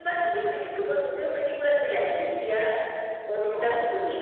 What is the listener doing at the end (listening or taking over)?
listening